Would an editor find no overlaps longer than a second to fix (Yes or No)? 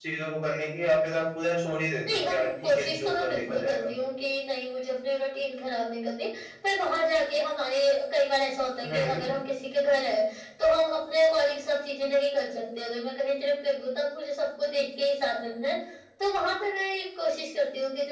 No